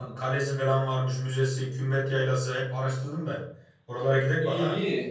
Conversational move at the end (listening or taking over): taking over